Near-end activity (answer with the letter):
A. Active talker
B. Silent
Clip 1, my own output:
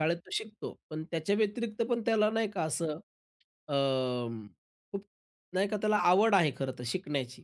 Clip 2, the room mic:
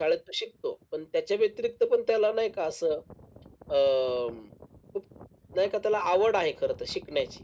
B